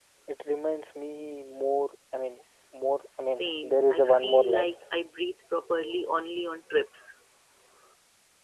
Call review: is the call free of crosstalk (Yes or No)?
No